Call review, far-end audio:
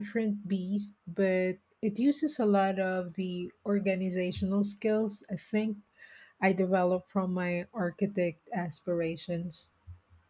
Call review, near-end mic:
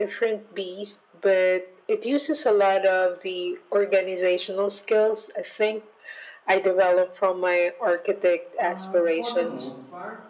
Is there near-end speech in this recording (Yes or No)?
Yes